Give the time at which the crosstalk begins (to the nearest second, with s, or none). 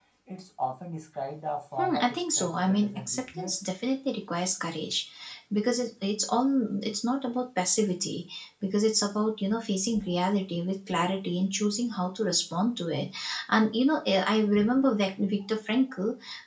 2 s